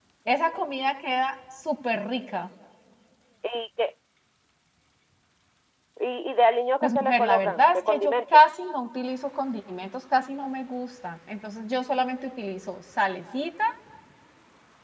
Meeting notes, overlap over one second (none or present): present